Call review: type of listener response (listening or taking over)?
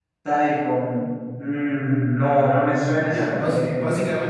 taking over